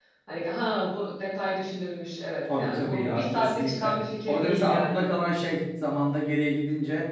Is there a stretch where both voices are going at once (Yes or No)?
Yes